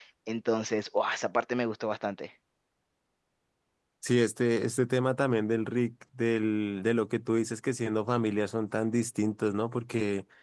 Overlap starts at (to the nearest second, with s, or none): none